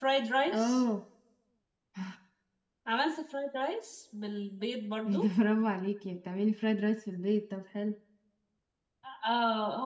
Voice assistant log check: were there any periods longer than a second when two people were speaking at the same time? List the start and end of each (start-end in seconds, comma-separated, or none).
none